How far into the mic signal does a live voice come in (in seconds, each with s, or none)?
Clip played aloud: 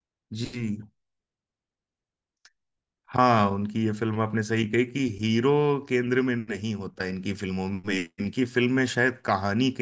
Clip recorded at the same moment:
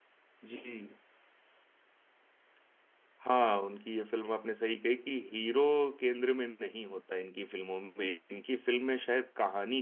none